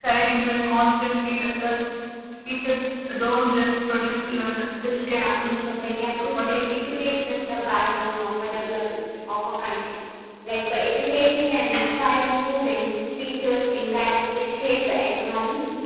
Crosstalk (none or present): present